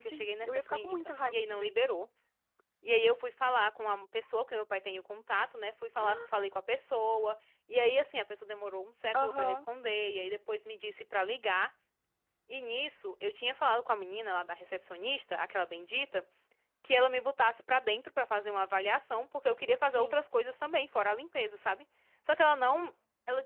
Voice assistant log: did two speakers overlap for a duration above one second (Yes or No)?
Yes